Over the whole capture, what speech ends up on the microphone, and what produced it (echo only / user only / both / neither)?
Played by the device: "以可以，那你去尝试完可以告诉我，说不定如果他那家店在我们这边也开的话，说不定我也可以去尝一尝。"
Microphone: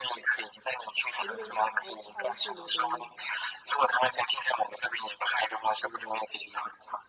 both